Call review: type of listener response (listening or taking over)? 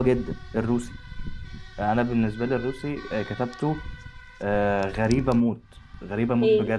taking over